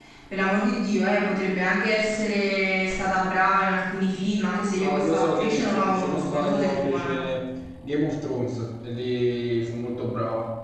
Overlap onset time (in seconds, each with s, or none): 4.7 s